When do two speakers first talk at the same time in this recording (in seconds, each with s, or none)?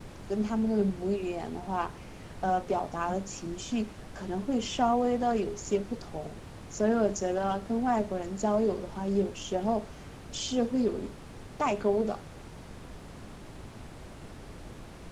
none